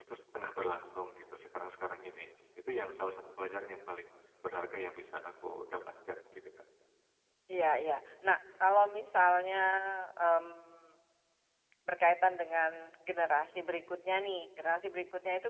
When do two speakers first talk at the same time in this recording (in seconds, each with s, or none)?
none